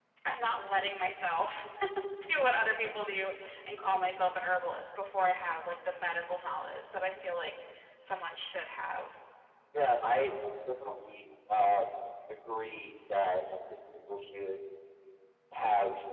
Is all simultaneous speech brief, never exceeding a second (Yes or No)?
Yes